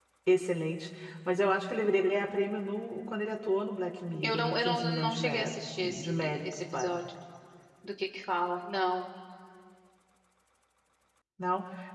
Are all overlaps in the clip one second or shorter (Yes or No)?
No